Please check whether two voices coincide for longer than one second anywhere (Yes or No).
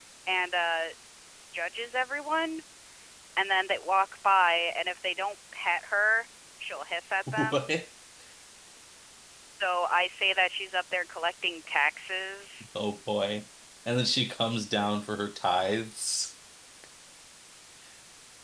No